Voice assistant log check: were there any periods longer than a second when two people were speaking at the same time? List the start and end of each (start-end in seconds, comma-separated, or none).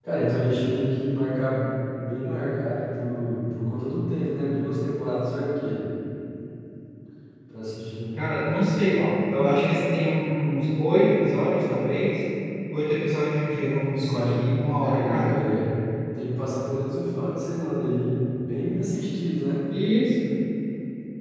13.9-15.4